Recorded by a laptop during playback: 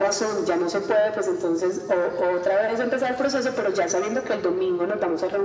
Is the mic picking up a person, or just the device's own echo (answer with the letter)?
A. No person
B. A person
A